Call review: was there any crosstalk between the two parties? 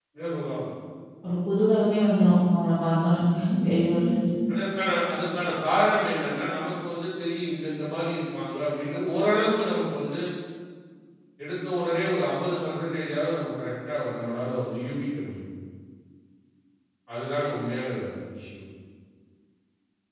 No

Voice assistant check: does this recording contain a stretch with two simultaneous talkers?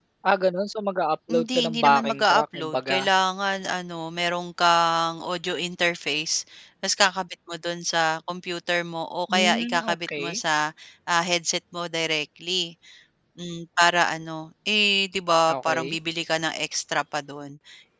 Yes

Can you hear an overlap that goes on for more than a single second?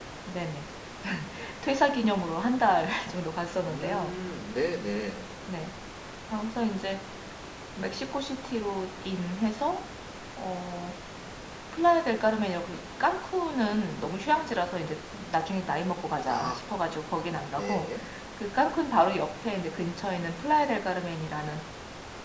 No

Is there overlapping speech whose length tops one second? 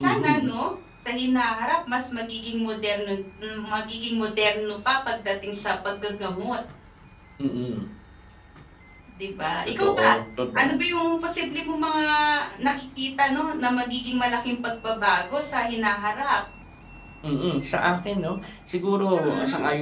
No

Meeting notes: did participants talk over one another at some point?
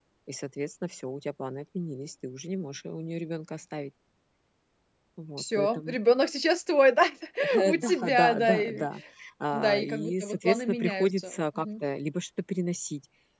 Yes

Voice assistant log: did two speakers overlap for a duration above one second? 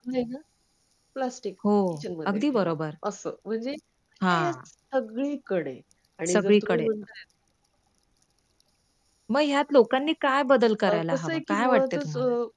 Yes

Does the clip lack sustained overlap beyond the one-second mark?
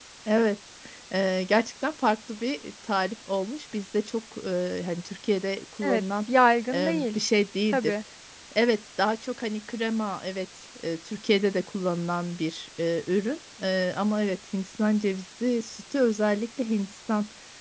Yes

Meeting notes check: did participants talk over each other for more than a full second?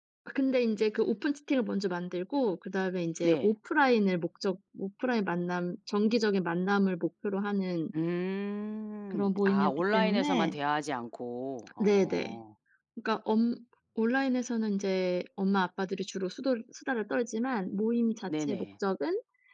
Yes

